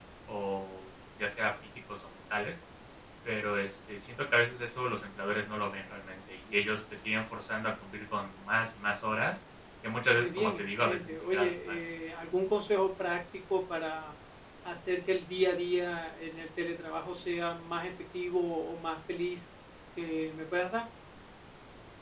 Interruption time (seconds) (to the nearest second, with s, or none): 10 s